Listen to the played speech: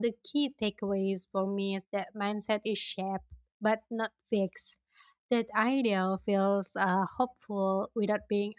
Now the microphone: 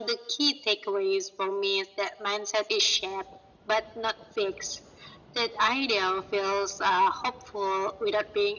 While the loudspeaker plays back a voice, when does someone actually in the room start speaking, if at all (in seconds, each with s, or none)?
none